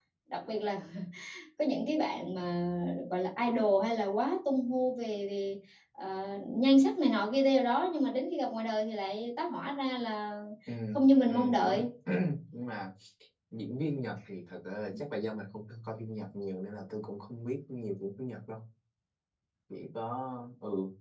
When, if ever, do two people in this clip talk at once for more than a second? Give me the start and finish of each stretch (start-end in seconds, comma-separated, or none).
none